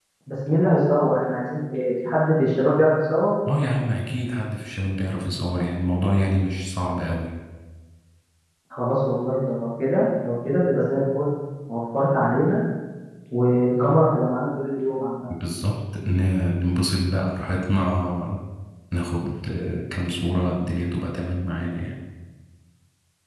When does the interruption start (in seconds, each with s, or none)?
none